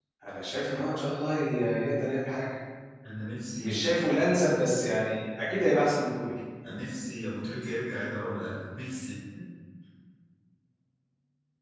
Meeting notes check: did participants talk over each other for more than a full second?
No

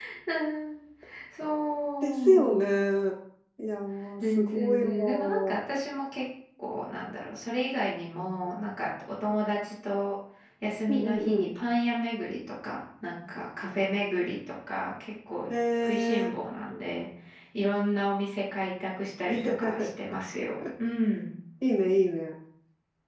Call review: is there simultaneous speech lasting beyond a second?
Yes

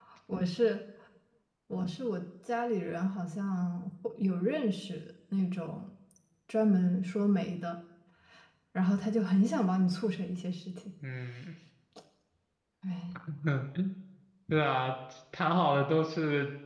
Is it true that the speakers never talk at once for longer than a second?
Yes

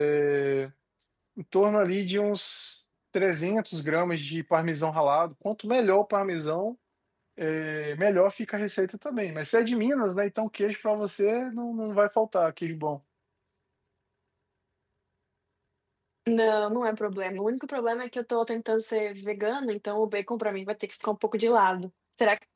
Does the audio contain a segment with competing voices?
No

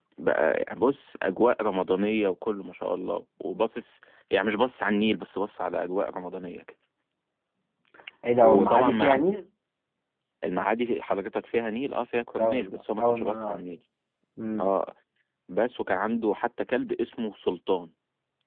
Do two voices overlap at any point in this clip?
Yes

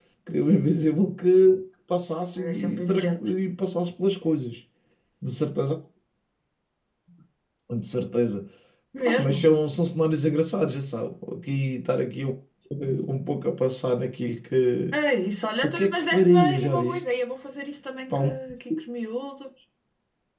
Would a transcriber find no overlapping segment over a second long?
No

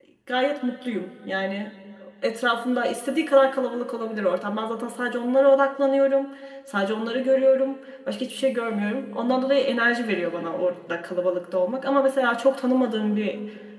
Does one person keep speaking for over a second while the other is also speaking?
No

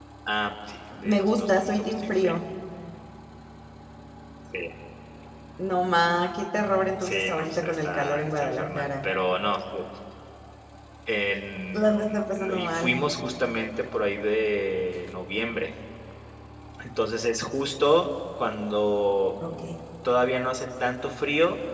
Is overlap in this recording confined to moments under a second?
No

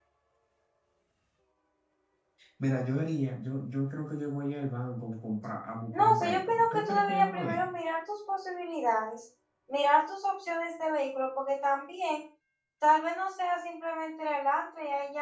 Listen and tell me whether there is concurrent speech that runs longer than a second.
Yes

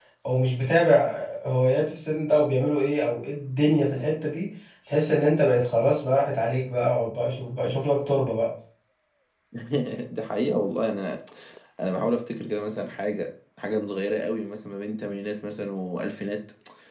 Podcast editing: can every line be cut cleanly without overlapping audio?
Yes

